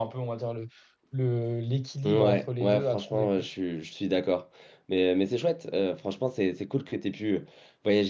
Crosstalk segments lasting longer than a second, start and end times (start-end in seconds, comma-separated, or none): 2.0-3.4